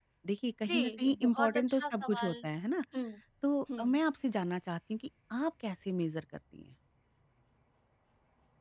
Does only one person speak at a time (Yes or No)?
No